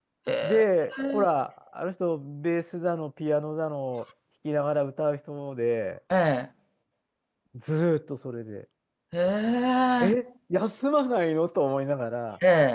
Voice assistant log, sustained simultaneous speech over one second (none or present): none